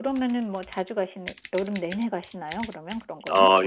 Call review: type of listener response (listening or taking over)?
taking over